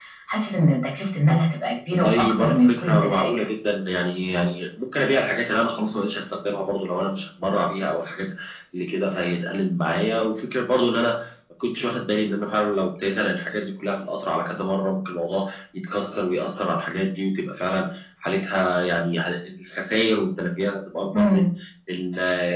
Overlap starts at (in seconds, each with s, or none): 1.9 s